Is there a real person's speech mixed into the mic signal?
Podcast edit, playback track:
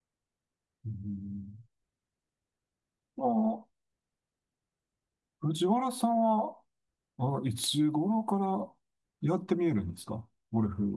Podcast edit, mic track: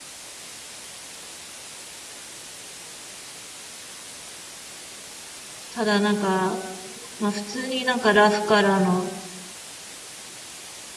Yes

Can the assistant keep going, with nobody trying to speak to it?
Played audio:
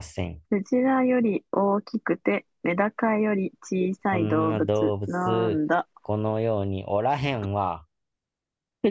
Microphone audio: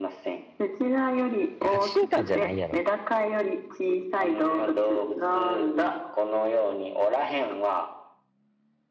No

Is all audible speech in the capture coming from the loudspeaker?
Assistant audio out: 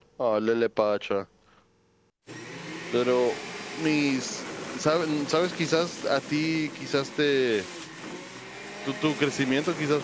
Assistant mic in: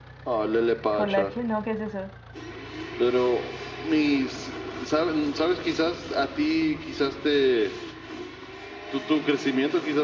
No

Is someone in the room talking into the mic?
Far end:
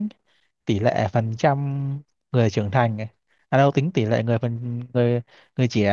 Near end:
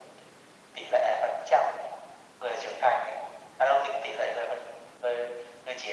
No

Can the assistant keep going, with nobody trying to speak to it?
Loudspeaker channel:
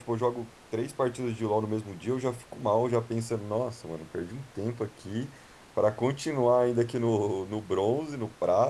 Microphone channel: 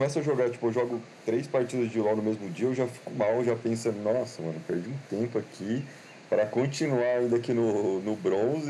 Yes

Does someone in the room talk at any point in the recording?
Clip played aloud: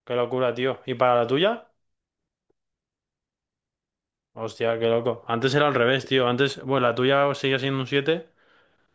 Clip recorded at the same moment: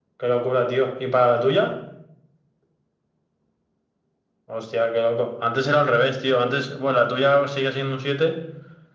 No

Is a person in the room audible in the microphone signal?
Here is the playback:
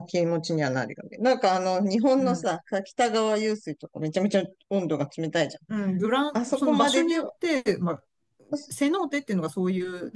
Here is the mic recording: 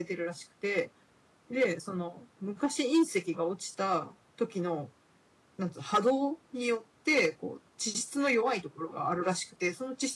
Yes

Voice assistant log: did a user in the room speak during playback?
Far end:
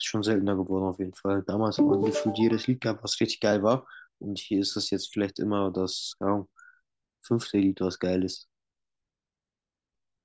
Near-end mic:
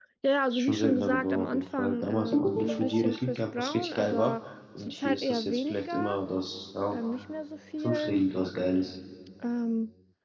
Yes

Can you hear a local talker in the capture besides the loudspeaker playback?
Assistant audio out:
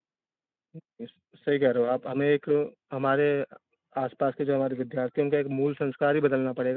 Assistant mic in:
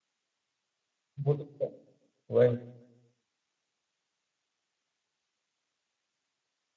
Yes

